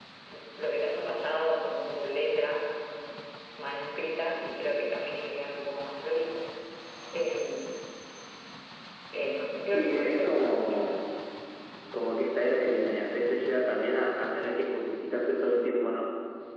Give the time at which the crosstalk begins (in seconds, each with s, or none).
9.7 s